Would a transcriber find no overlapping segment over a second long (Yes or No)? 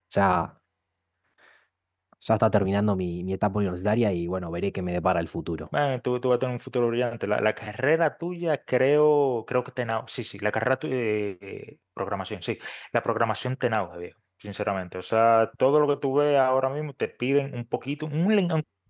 Yes